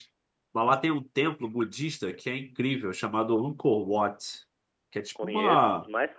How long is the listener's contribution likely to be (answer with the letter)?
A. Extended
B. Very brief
A